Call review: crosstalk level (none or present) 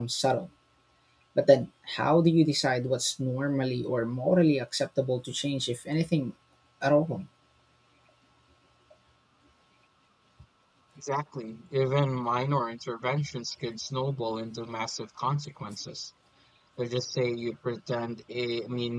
none